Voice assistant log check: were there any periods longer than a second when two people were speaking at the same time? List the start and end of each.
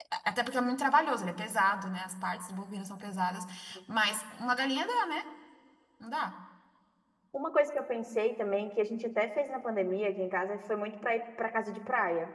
none

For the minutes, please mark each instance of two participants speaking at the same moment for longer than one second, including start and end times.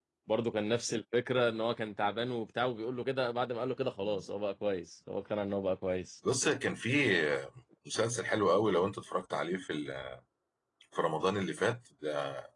none

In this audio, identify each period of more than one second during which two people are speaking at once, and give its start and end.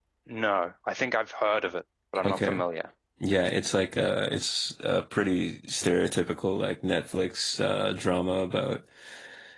none

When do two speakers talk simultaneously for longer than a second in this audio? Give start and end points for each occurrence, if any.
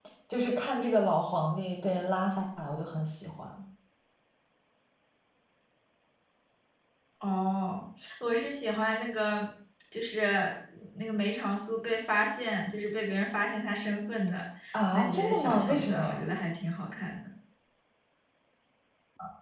14.9-16.2

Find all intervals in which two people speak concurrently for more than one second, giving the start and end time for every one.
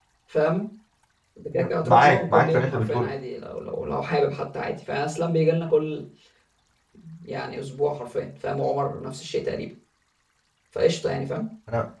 1.5-3.1

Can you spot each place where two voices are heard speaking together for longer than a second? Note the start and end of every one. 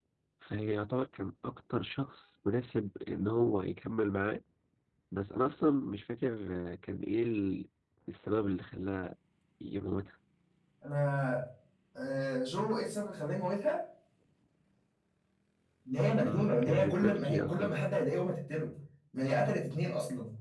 16.2-17.7

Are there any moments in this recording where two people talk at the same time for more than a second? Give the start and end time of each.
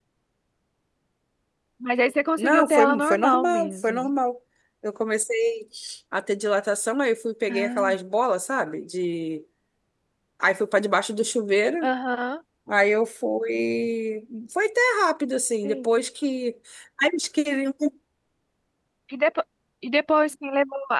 2.4-4.1

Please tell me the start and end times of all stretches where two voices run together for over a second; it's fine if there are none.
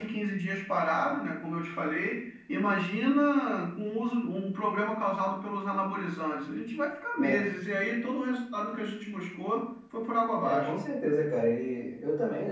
none

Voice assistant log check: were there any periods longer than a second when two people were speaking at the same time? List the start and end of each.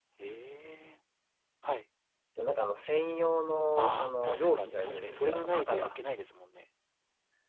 3.8-6.0

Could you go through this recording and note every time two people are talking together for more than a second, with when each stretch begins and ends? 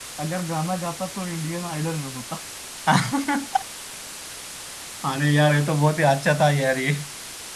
none

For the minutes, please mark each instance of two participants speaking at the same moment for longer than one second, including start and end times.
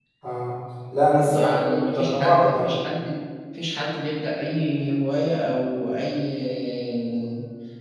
1.3-2.7

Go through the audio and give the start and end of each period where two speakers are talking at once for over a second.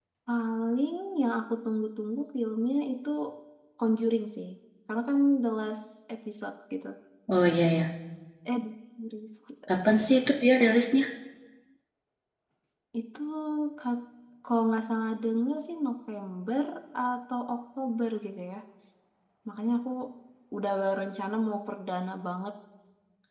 none

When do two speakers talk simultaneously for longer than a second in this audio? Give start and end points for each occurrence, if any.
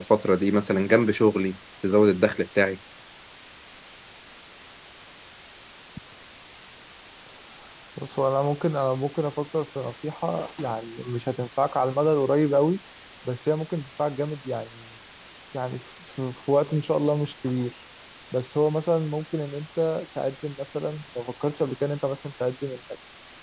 none

